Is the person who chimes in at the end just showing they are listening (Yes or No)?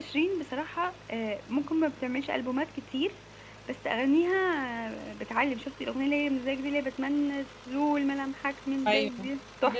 No